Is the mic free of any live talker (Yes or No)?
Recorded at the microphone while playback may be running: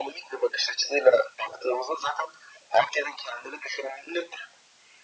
Yes